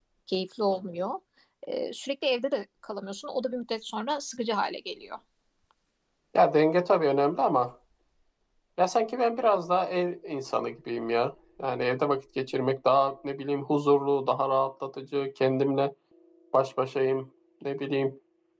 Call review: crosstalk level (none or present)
none